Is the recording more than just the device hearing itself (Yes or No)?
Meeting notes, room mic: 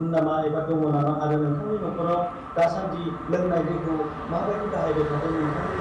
Yes